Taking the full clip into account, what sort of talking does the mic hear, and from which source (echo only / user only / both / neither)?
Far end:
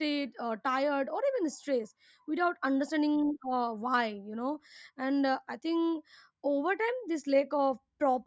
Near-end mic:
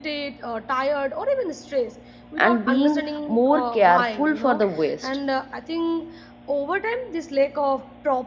both